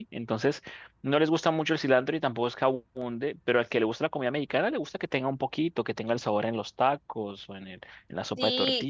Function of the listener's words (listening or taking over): taking over